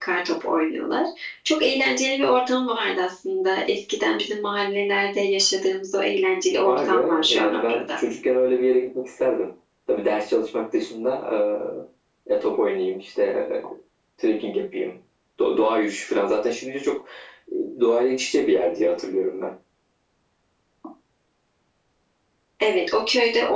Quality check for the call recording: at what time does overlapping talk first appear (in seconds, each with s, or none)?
6.6 s